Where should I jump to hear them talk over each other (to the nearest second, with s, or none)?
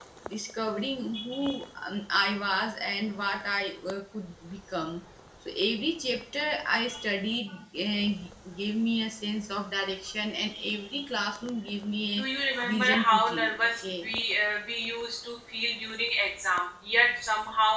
13 s